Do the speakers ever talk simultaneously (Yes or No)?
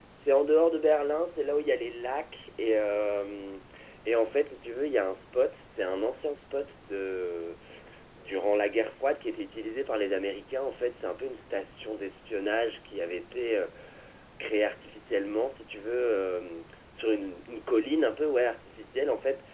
No